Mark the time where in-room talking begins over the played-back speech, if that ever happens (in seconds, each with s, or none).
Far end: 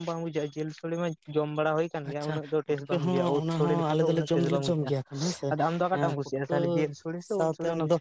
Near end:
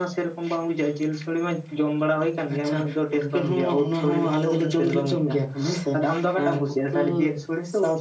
none